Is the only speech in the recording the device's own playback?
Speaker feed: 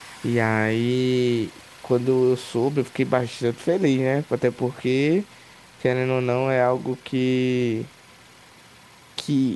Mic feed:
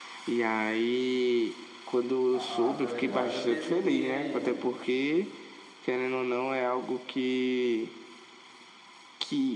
No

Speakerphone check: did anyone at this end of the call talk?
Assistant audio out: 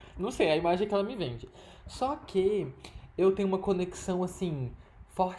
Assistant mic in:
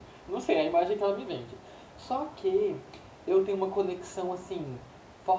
No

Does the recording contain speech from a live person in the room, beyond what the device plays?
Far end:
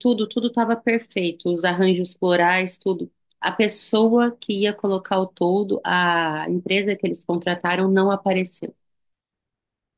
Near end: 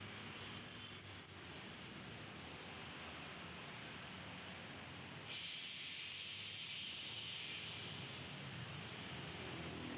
No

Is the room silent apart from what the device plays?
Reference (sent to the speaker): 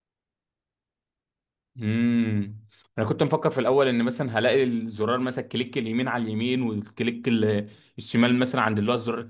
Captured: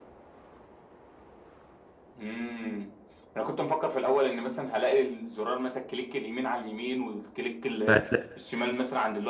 No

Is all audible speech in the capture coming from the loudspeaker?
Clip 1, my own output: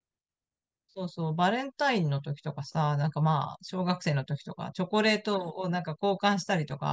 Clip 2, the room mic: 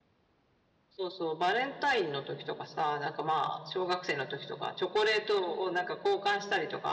Yes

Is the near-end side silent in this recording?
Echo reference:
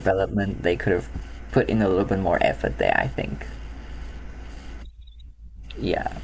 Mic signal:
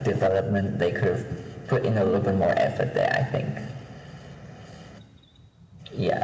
Yes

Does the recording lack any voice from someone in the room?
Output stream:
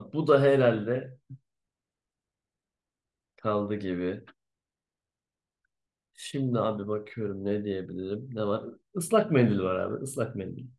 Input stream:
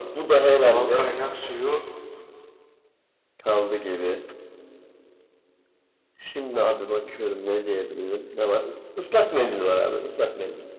No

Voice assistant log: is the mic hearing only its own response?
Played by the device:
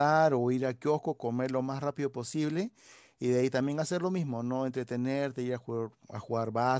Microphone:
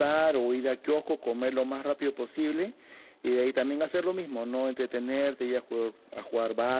Yes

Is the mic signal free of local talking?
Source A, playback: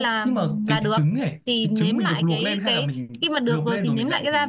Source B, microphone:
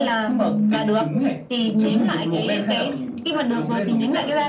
No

